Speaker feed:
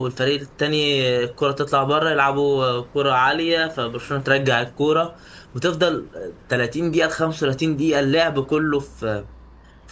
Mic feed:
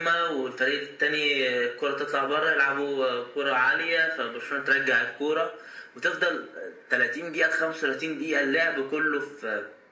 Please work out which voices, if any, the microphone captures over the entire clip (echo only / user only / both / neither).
echo only